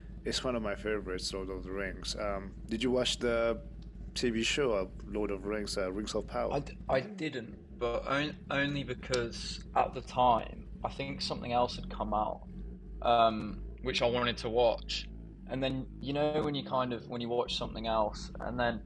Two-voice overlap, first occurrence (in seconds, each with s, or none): none